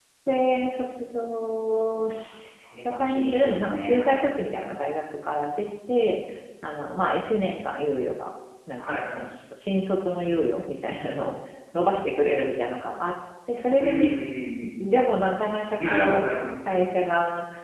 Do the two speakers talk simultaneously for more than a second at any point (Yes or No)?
Yes